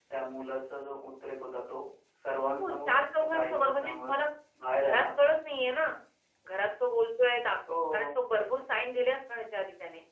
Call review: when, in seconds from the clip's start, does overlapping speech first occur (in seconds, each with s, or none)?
2.6 s